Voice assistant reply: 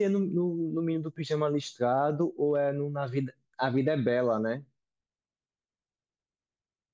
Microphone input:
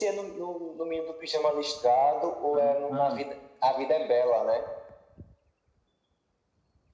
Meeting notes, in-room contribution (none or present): present